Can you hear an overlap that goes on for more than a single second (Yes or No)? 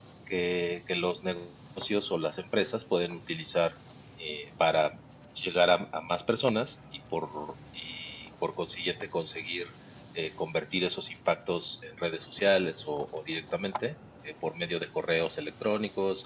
No